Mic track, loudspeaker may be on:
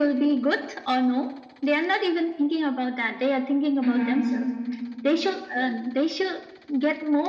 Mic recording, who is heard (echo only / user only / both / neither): both